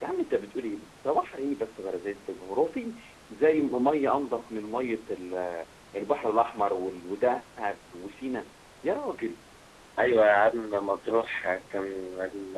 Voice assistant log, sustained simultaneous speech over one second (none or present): none